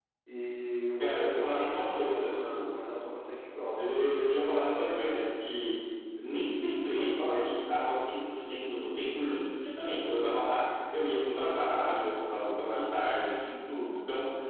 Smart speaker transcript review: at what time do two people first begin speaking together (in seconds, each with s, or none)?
1.0 s